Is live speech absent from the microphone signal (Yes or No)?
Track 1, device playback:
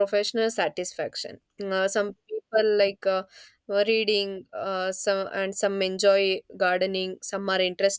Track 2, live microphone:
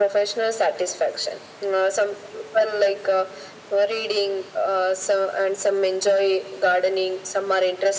Yes